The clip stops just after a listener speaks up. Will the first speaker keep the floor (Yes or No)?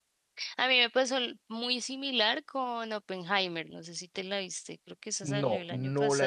No